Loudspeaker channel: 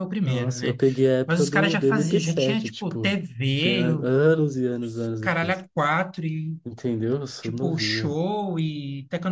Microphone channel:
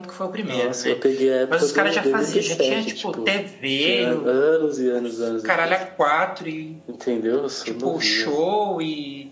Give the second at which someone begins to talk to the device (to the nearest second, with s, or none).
none